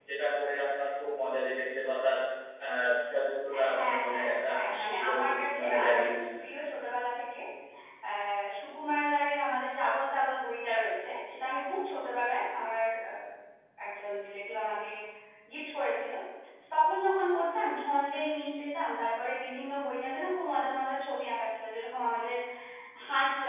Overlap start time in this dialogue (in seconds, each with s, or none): 3.5 s